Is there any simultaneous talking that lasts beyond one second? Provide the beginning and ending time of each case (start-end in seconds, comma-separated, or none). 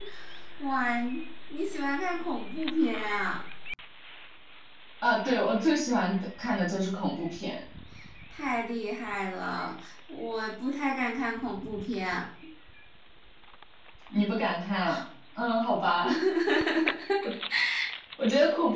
none